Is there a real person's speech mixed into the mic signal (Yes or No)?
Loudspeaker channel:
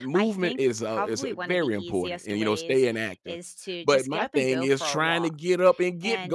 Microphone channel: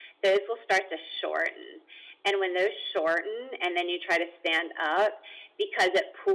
Yes